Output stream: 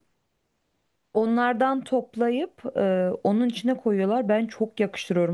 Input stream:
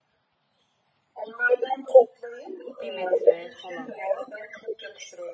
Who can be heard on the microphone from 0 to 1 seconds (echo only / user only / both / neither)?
neither